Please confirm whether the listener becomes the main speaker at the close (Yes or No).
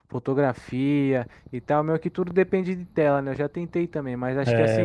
No